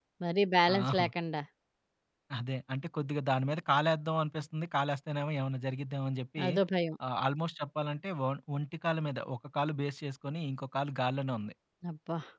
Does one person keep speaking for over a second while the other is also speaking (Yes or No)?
No